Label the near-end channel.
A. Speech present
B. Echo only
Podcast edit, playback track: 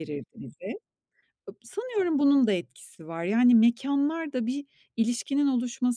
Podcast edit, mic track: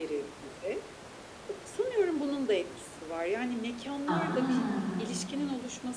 A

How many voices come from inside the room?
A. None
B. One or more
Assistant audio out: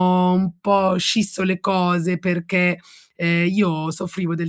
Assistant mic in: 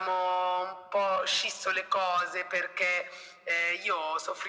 A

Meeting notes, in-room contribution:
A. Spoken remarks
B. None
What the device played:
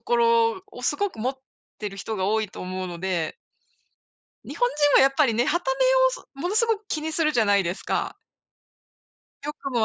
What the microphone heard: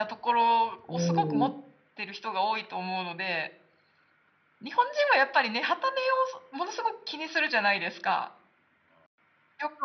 A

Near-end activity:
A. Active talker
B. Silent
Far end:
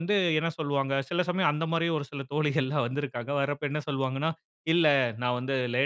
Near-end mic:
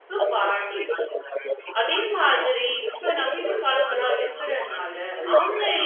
A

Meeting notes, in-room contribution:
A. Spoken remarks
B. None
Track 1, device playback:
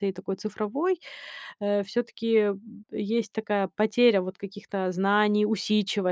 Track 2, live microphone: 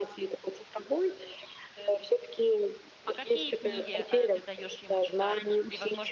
A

